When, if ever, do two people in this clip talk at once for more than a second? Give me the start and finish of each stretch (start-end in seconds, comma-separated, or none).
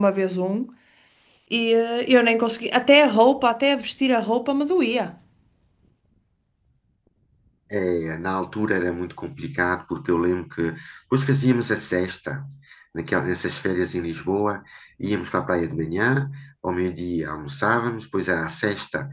none